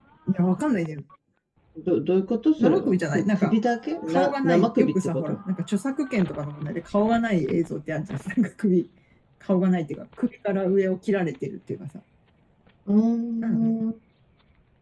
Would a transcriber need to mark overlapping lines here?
Yes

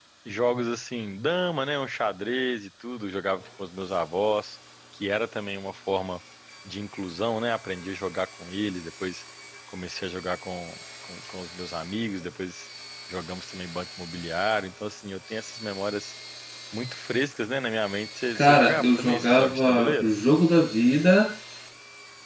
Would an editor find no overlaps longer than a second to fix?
No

